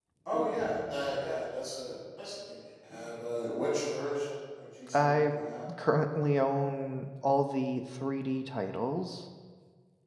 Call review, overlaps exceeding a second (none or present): none